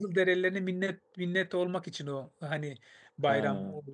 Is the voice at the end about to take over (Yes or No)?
No